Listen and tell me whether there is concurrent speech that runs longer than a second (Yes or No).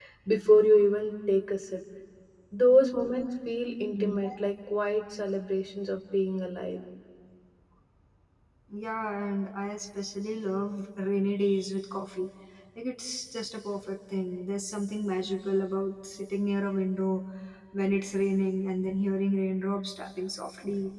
No